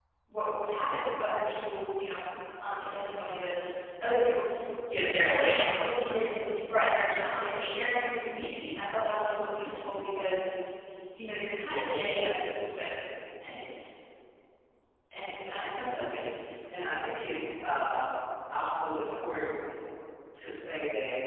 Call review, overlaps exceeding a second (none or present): present